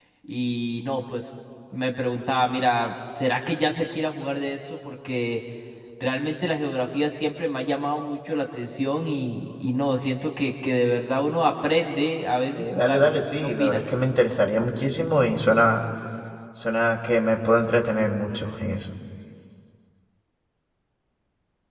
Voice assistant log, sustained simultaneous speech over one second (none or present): present